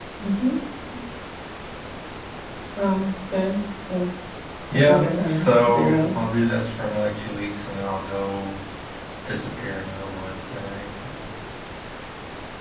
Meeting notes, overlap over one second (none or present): present